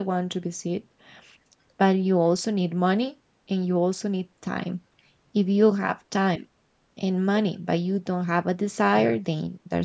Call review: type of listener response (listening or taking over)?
listening